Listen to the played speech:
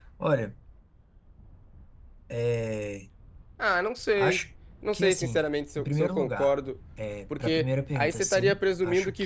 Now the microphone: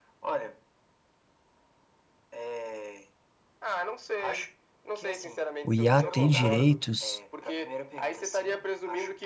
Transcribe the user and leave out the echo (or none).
o IA ter direitos,